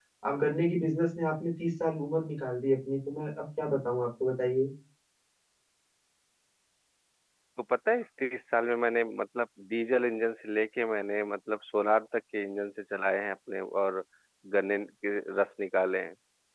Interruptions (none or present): none